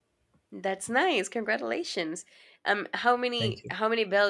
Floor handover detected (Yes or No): No